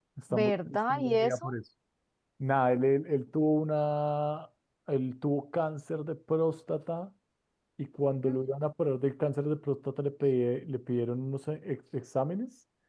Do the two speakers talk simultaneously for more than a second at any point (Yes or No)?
Yes